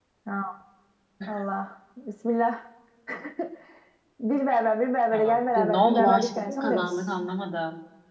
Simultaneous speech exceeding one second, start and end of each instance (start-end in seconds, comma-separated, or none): 5.1-7.0